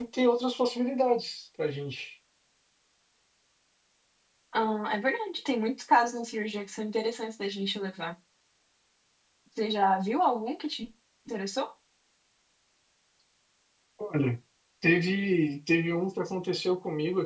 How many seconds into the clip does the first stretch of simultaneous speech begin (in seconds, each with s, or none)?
none